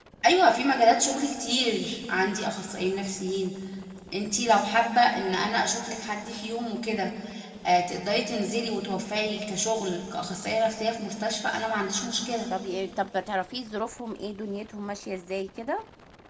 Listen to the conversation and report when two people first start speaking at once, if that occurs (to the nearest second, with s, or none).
none